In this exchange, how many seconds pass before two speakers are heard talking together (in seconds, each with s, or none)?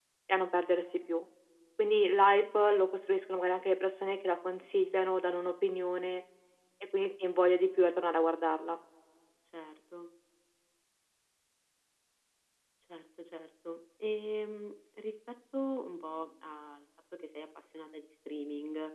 none